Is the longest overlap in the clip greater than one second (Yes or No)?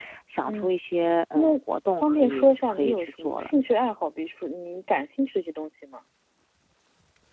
Yes